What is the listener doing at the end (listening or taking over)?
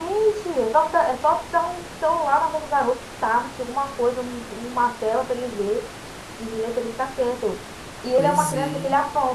listening